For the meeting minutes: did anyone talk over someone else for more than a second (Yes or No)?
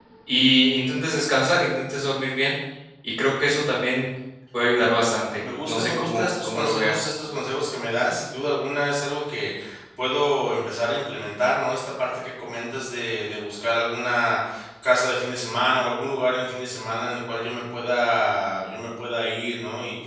Yes